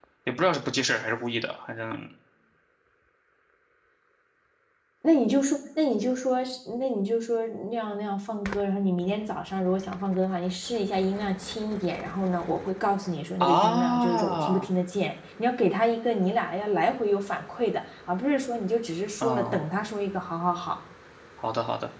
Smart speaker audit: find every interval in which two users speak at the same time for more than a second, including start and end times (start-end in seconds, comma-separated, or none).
13.4-14.7